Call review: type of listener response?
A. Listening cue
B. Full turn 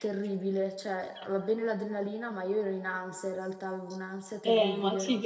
B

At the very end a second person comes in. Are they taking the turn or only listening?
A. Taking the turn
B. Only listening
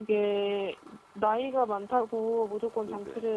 B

